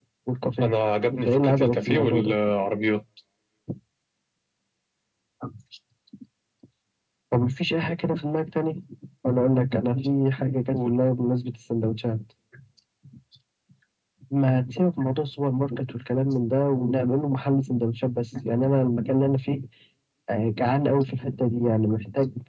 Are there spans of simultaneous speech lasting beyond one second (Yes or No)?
Yes